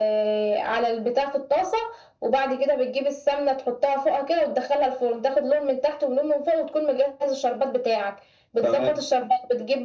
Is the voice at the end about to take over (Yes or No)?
No